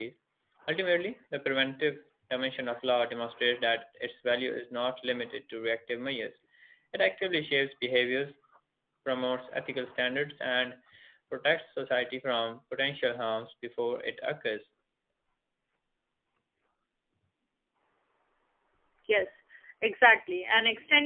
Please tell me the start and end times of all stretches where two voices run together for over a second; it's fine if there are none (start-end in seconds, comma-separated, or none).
none